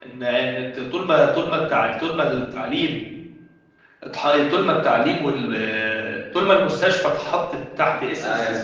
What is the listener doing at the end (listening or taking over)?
listening